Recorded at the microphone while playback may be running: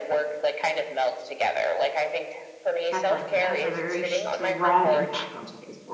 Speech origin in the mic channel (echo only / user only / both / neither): both